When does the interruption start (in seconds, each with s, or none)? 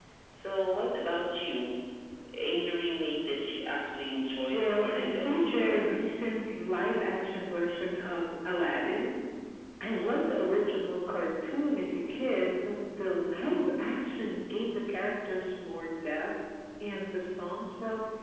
4.5 s